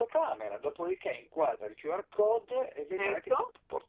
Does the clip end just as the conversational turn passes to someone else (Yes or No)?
No